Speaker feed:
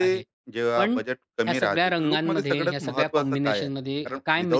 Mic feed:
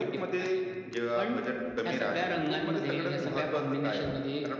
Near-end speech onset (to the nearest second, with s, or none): none